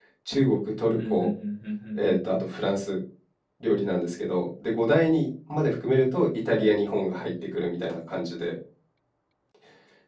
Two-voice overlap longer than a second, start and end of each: none

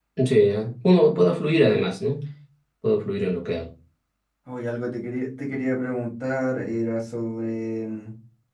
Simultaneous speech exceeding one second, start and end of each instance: none

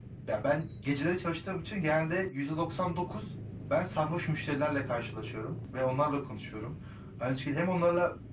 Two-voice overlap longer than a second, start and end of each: none

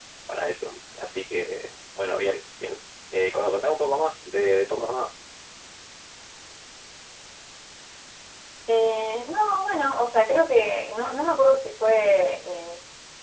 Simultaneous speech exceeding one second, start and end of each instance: none

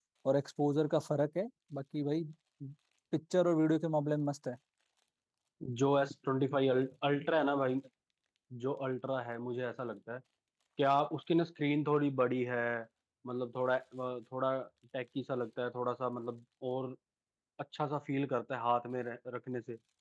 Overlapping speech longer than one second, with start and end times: none

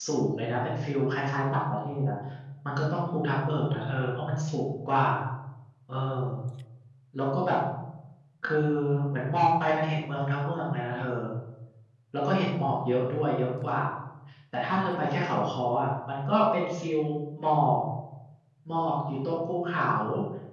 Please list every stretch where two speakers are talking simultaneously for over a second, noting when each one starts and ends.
none

